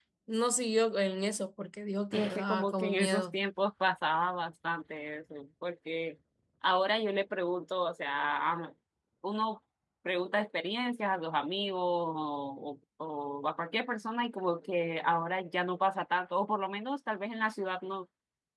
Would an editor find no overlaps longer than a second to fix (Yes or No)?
No